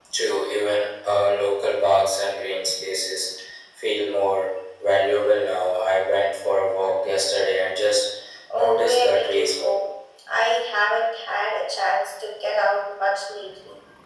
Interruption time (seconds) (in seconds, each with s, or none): 8.5 s